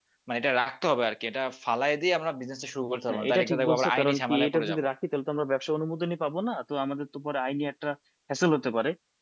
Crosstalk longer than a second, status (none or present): present